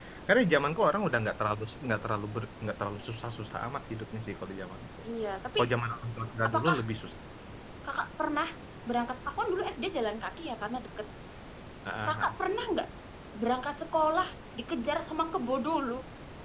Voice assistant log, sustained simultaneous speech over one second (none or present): none